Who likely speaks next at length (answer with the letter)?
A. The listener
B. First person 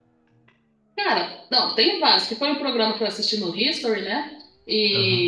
B